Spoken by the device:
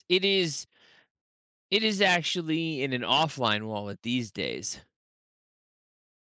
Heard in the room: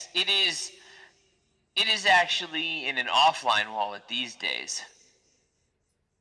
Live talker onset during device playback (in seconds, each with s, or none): none